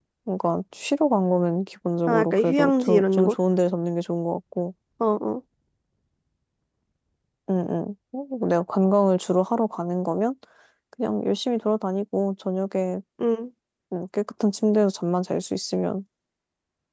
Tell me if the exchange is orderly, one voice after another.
No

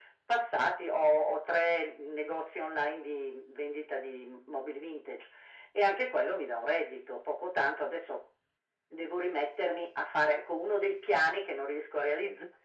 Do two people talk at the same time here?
No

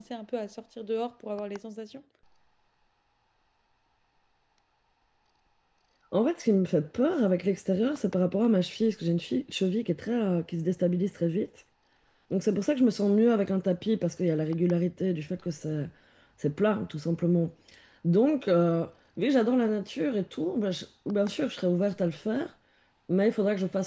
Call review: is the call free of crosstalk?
Yes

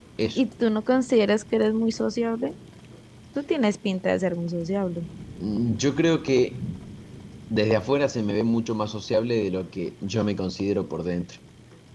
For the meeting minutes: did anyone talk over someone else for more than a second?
No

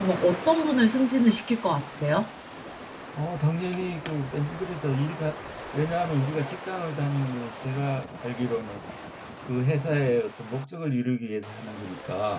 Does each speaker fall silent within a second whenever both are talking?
Yes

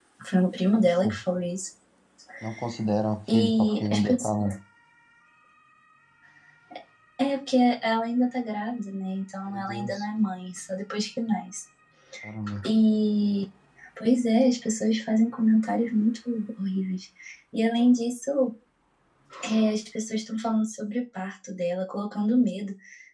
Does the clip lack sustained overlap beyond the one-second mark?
No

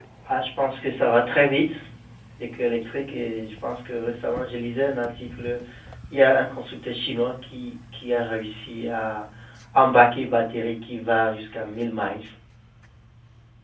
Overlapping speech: No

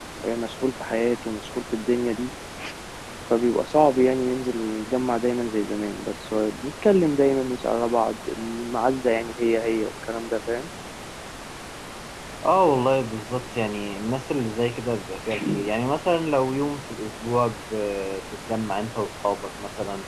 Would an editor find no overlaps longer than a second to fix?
Yes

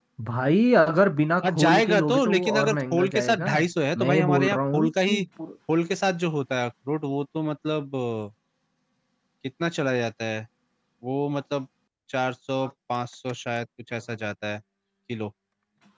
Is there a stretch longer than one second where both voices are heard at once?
Yes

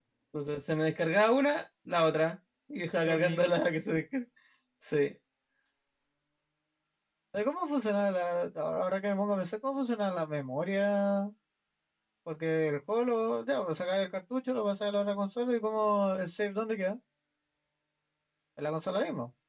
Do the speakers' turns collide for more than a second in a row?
No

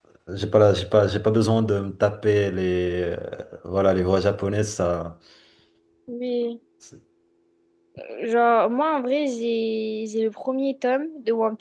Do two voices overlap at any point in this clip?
No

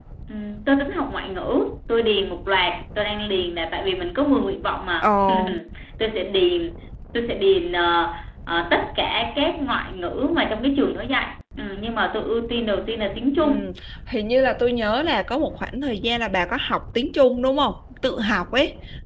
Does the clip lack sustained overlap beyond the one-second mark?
Yes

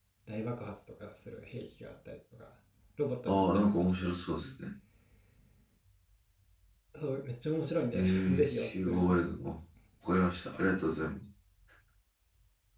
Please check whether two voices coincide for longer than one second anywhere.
Yes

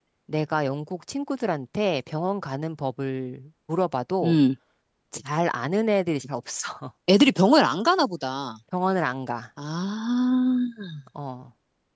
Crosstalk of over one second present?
No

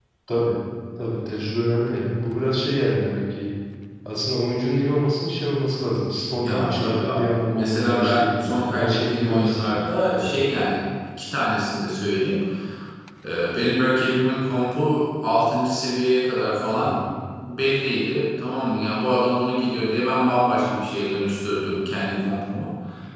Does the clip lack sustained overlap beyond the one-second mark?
No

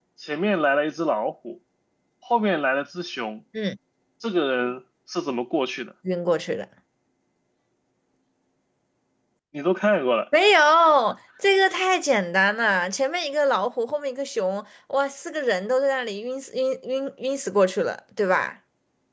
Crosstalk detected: No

